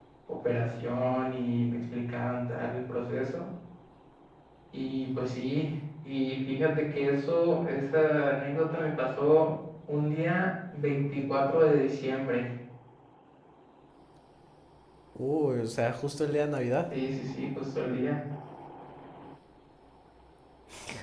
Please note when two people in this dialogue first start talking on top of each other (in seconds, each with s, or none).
none